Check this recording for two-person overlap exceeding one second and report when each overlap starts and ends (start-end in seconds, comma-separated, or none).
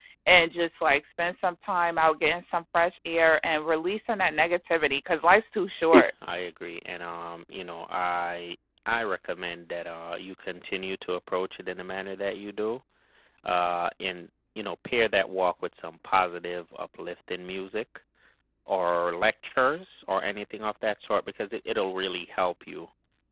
none